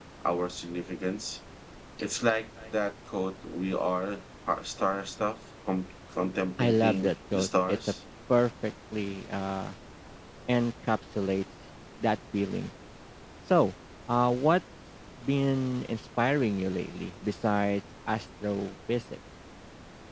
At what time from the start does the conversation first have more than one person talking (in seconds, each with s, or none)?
6.6 s